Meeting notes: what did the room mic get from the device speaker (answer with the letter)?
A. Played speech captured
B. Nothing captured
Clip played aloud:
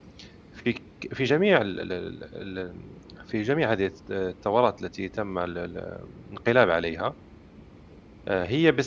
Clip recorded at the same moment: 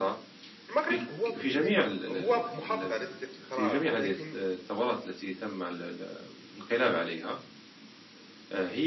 A